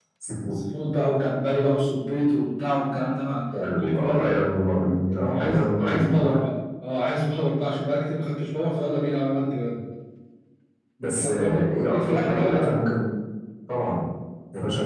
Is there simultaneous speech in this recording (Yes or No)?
Yes